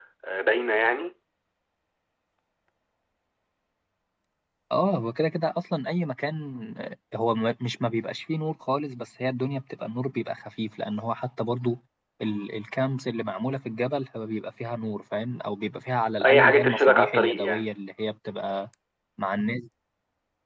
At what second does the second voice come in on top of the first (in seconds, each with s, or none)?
16.2 s